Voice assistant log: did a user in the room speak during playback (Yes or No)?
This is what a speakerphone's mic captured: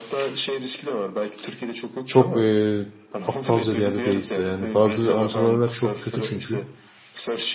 Yes